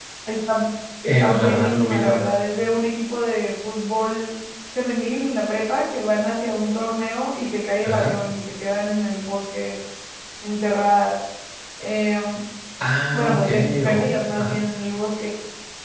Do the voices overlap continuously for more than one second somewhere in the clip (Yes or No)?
Yes